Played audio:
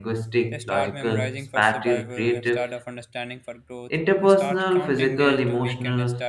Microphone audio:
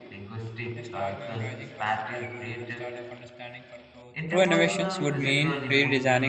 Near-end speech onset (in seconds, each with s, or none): 4.3 s